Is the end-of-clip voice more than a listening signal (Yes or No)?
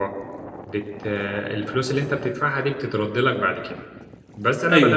Yes